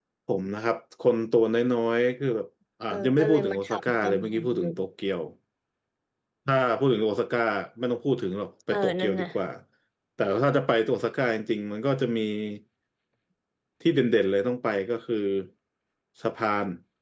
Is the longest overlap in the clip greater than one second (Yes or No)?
Yes